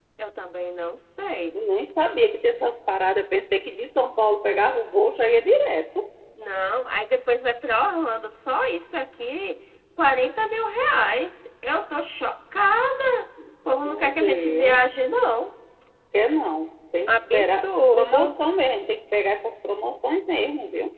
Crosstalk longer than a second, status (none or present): present